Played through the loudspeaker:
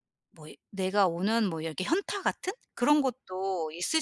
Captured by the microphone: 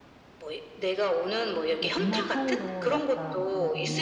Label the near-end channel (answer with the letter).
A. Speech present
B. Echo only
A